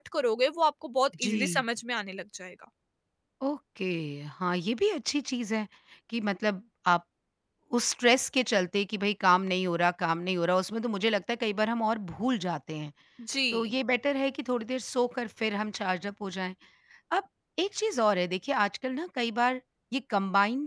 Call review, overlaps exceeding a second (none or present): none